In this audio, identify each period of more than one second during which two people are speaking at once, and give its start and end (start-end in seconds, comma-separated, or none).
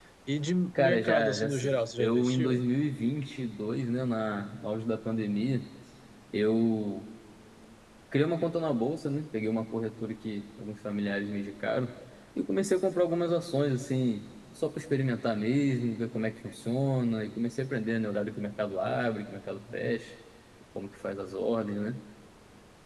0.8-2.6